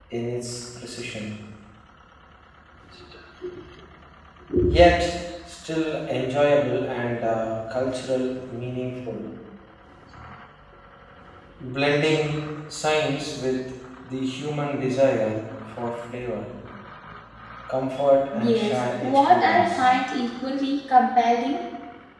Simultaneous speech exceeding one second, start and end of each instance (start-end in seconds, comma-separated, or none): 18.3-19.8